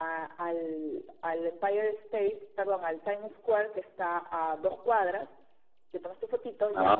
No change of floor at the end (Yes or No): Yes